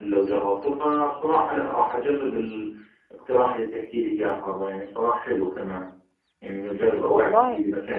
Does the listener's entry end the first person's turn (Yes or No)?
No